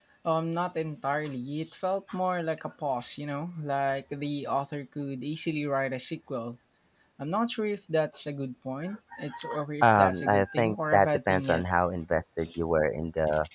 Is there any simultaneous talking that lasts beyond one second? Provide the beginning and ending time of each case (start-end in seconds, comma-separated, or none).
9.8-11.6